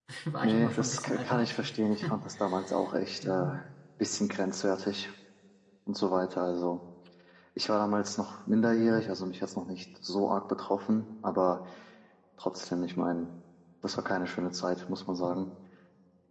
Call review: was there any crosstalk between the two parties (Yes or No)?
Yes